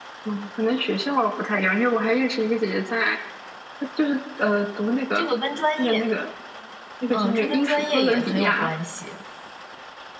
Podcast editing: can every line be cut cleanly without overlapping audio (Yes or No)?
No